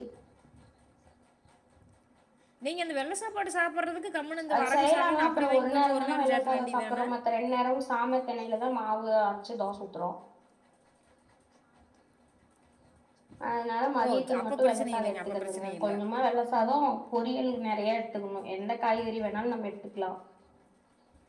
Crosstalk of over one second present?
Yes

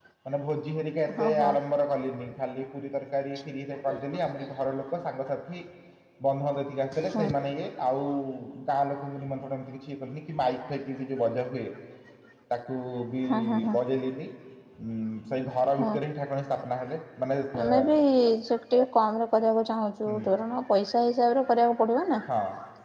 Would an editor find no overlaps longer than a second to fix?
Yes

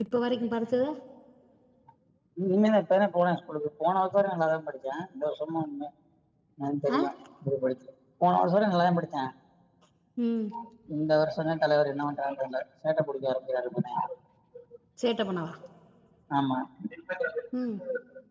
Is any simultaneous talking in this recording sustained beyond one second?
No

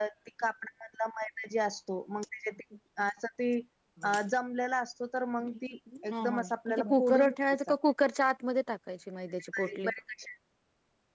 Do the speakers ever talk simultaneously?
Yes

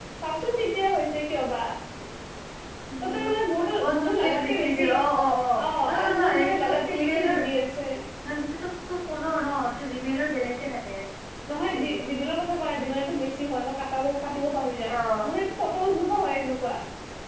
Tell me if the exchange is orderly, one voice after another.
No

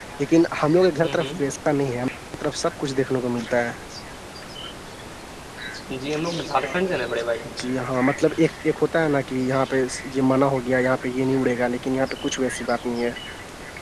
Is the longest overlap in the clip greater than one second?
No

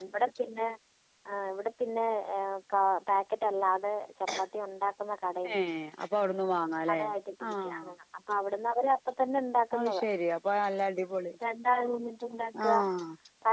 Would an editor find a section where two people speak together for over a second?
No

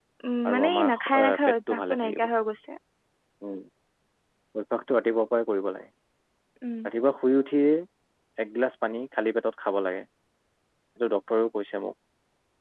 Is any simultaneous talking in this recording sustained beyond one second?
Yes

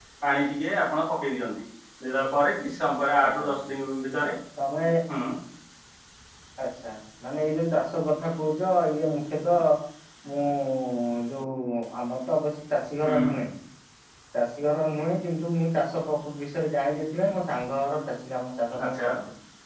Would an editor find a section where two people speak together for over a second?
No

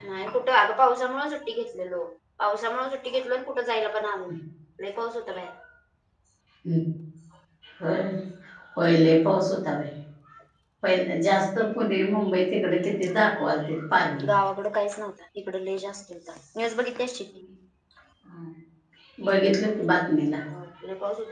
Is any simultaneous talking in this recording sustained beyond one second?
No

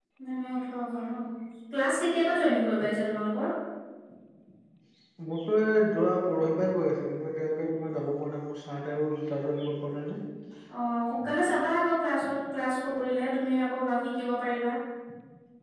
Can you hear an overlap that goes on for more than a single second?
No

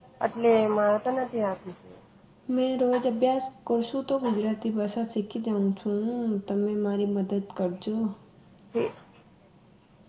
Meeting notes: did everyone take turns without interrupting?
Yes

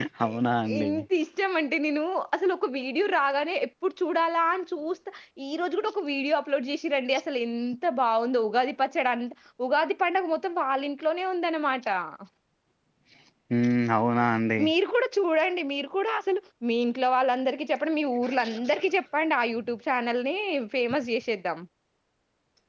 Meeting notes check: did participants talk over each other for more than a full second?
No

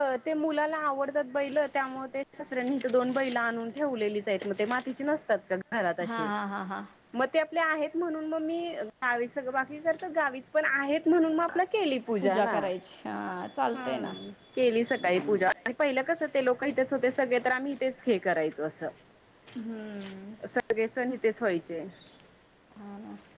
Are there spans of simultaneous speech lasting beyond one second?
No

